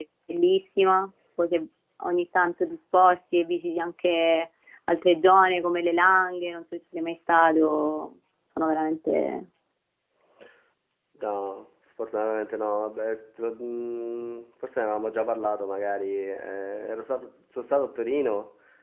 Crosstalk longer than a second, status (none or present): none